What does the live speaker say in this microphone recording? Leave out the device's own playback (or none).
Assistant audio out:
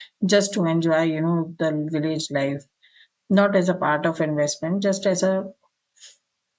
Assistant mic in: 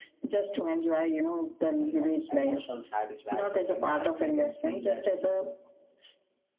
uh, you know emotional satisfaction. You know, I I can feel that